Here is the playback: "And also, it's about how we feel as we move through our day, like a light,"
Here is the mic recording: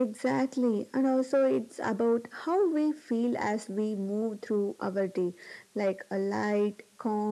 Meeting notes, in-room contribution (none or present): none